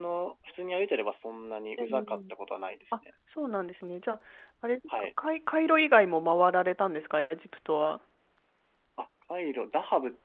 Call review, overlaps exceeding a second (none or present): none